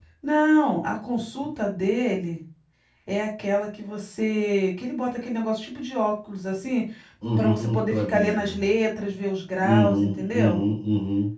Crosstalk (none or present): present